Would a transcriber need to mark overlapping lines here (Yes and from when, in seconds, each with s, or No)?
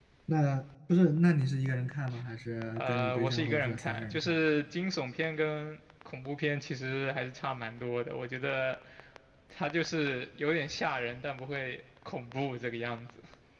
Yes, from 2.8 s